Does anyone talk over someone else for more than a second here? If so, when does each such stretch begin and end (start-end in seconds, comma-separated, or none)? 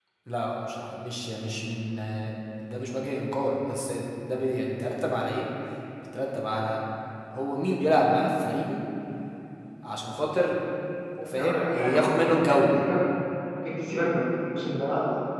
11.3-12.6